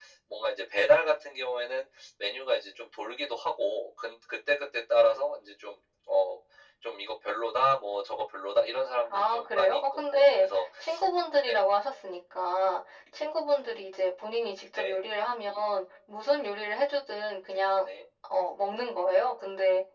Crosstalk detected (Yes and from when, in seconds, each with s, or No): Yes, from 9.1 s